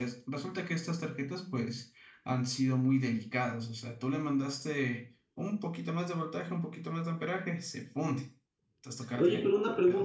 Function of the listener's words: taking over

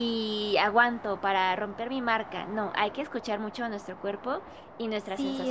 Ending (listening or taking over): taking over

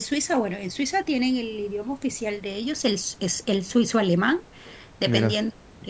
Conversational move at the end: listening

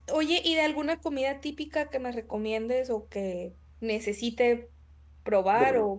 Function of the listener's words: listening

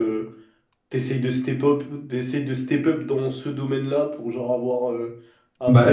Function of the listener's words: listening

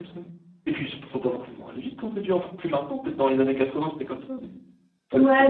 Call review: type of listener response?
taking over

